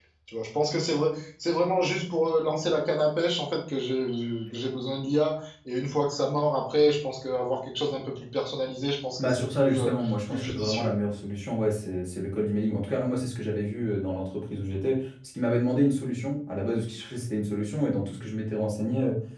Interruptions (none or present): present